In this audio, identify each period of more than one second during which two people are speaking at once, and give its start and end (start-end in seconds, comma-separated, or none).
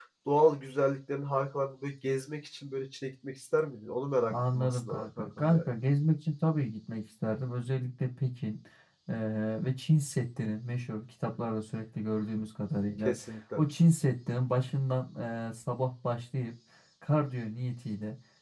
4.3-5.7